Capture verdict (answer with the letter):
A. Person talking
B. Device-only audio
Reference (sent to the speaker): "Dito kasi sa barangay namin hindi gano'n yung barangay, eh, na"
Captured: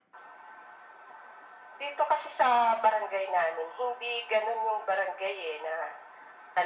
B